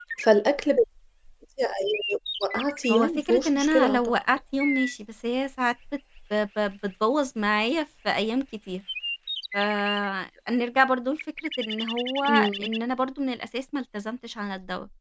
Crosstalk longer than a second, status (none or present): present